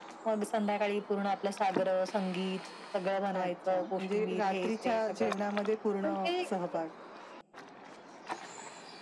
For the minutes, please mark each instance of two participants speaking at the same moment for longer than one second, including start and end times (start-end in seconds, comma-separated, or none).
3.3-5.3